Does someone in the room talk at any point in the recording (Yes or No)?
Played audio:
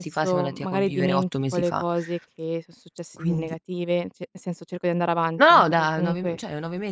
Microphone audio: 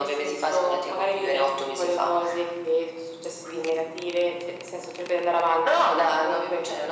No